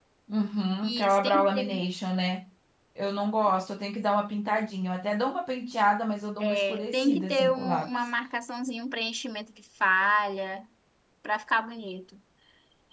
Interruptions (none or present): present